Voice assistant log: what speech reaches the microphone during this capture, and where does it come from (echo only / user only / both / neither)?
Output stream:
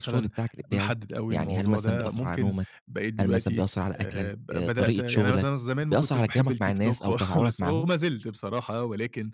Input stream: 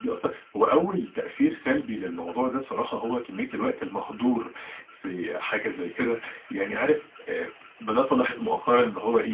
user only